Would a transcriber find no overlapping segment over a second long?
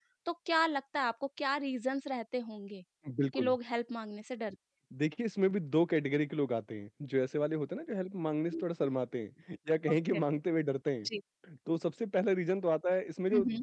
Yes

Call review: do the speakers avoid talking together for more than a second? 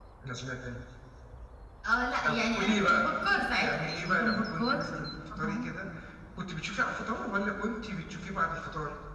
No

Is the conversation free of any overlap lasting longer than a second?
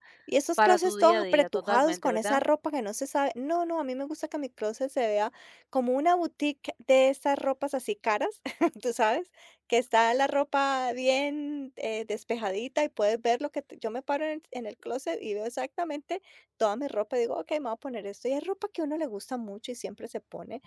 No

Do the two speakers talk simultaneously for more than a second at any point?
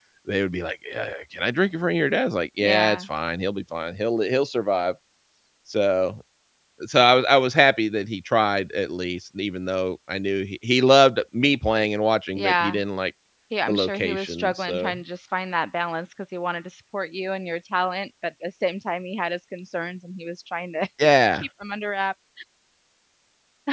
Yes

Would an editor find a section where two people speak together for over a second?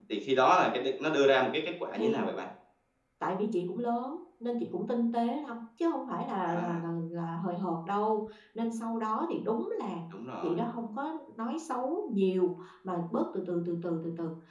No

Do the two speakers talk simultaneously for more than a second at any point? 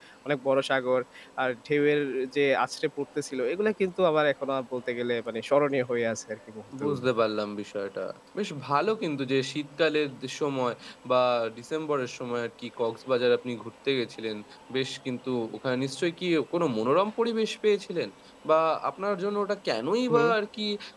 No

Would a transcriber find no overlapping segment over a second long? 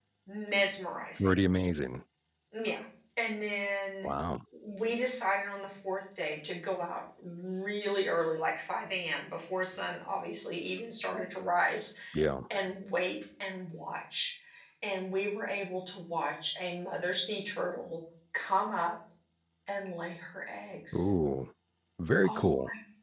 Yes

